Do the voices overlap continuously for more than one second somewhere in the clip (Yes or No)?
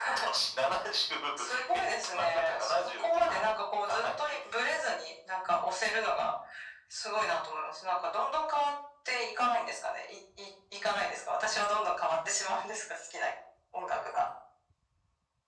Yes